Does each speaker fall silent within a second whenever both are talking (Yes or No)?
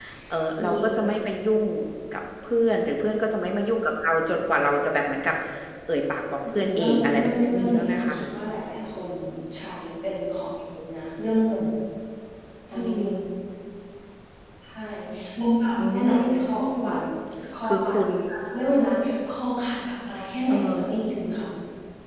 No